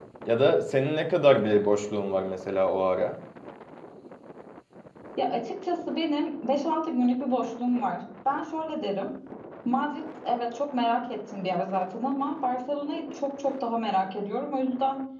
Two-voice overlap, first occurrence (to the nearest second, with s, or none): none